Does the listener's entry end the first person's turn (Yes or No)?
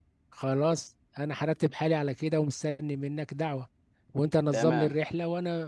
No